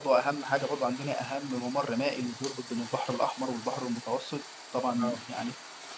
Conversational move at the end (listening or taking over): listening